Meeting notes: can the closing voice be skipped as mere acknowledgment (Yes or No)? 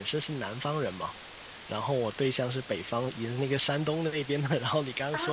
Yes